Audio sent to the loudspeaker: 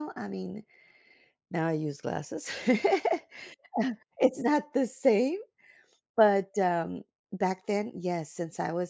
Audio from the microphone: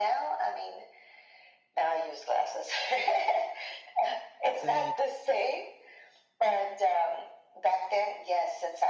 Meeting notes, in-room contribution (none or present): present